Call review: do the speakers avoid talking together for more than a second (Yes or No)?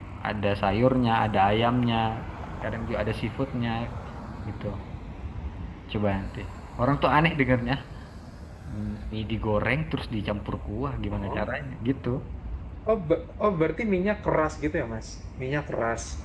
Yes